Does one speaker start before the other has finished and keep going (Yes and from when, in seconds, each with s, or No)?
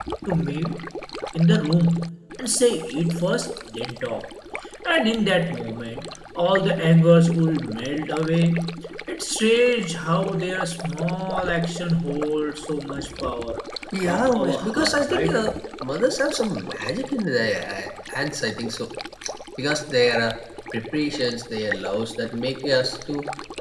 Yes, from 14.1 s